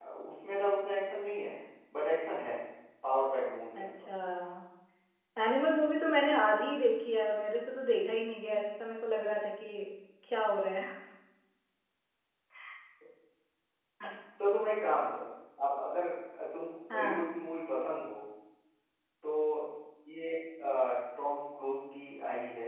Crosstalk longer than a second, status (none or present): none